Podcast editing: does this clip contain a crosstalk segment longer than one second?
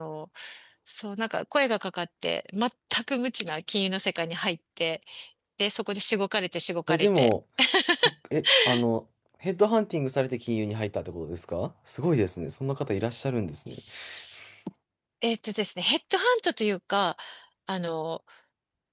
No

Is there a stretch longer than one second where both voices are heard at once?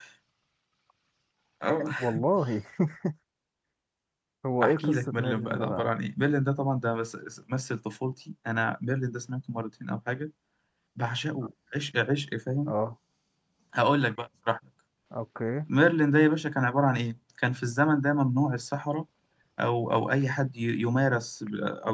Yes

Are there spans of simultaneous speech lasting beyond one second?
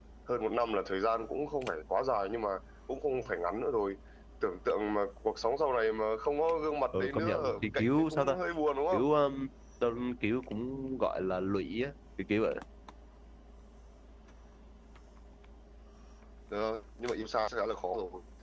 Yes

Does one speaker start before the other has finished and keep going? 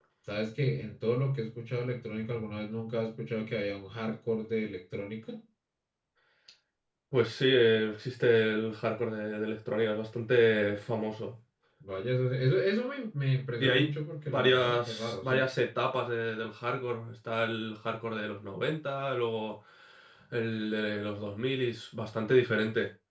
Yes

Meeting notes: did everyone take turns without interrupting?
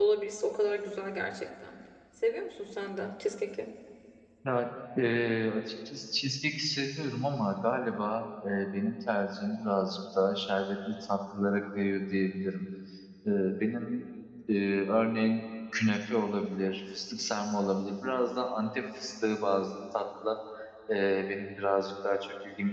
Yes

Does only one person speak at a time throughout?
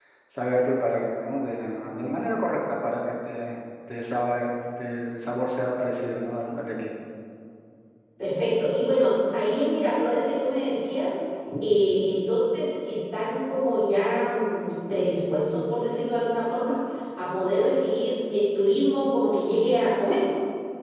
Yes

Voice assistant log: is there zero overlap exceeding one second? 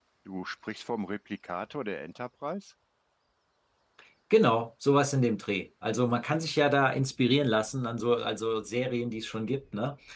Yes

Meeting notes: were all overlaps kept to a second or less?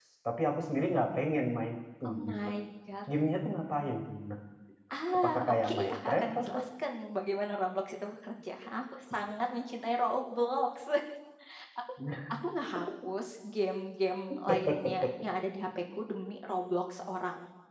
No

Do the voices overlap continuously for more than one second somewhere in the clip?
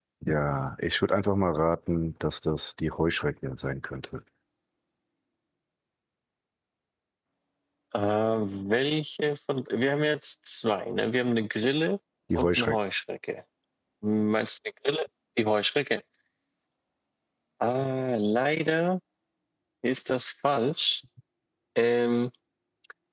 No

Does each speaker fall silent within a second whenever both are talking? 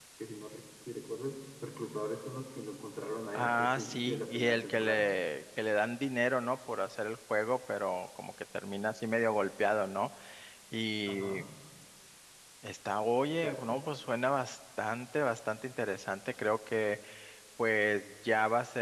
No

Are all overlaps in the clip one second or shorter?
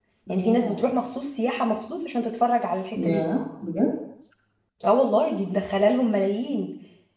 Yes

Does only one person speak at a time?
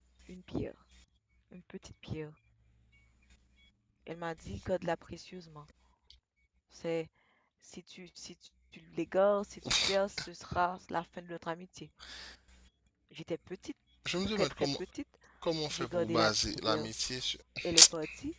No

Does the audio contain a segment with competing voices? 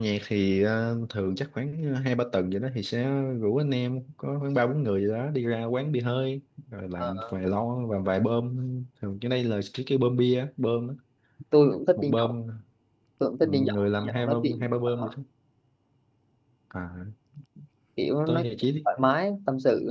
Yes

